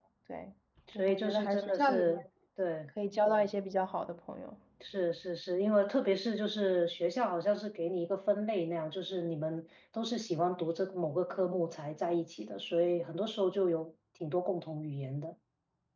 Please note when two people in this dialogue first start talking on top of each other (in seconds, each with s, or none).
0.9 s